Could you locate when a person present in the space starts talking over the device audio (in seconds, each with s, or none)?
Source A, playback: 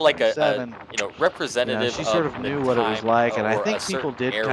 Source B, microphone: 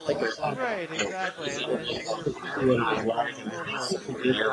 0.4 s